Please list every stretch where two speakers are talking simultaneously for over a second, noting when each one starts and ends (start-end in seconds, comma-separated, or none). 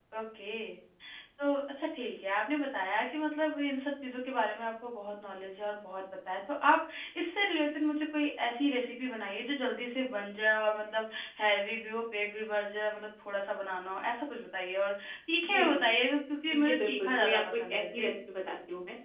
16.6-18.1